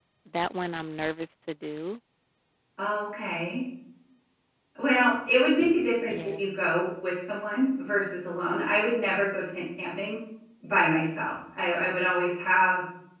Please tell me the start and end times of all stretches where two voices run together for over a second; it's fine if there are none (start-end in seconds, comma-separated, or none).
none